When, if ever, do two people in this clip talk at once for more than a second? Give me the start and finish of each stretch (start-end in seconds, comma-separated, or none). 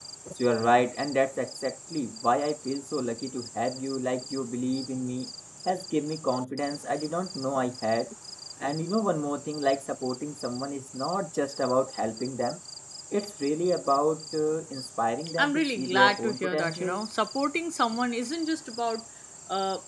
15.4-17.0